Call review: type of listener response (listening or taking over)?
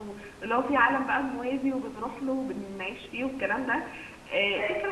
listening